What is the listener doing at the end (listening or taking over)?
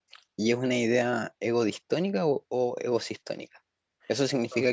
listening